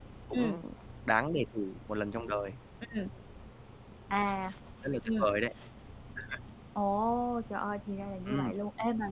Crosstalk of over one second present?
No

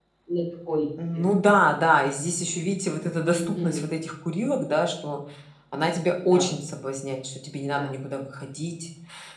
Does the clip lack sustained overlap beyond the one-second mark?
Yes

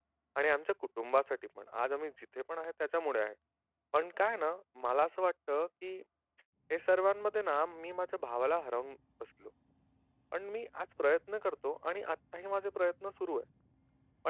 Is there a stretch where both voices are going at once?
No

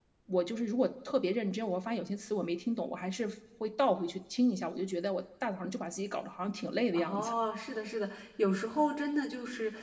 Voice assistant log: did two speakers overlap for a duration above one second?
No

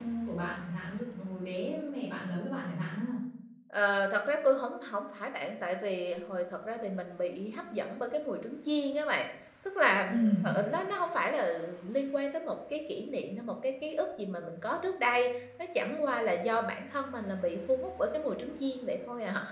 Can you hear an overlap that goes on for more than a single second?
No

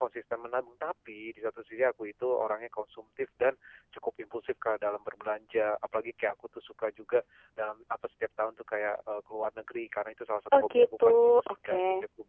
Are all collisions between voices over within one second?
No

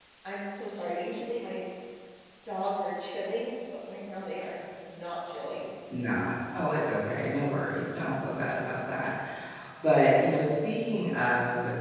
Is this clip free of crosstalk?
Yes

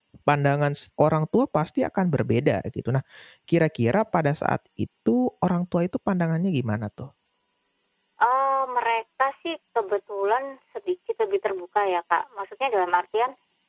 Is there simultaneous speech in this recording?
No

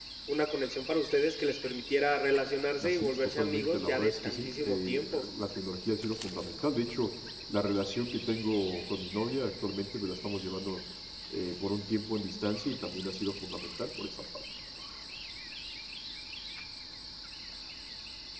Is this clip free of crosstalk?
No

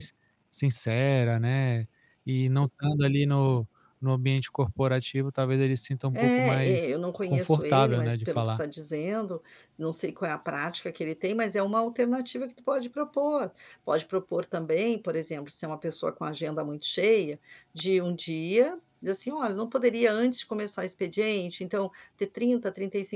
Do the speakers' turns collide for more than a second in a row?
Yes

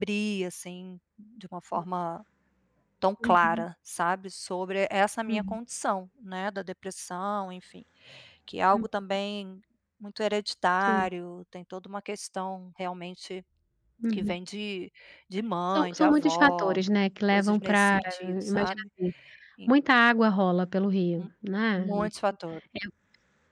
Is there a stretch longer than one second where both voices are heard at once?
Yes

